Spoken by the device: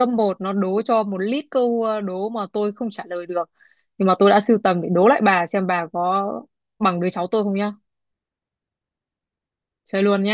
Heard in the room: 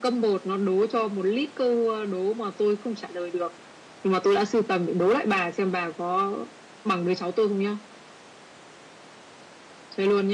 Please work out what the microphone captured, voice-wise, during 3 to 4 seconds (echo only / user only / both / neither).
echo only